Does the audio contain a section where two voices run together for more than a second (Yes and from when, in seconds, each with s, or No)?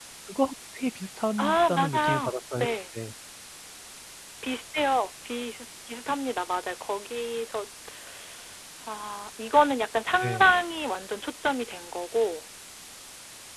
Yes, from 1.4 s